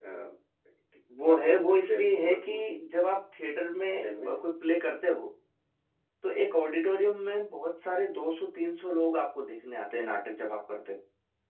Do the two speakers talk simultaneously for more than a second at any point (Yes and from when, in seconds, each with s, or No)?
Yes, from 1.2 s